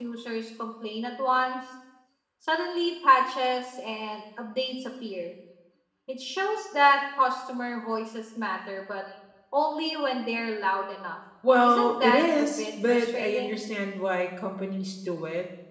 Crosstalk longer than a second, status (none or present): present